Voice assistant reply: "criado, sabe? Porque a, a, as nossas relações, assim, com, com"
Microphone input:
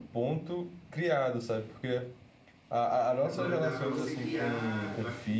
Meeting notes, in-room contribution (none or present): present